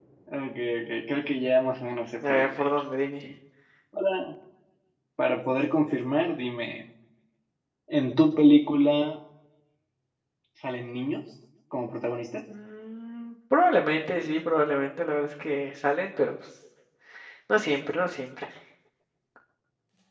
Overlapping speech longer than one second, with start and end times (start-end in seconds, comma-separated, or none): none